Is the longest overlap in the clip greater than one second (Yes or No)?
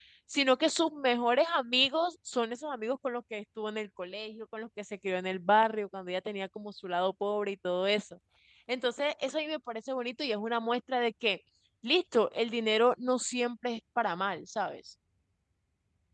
No